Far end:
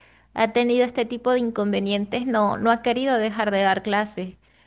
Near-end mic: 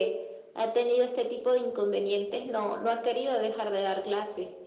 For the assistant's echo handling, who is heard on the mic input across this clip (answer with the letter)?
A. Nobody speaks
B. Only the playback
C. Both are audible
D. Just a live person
B